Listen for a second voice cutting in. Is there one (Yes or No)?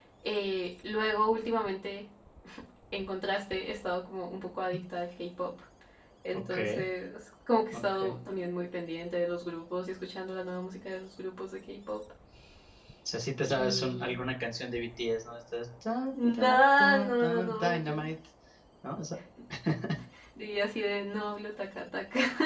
Yes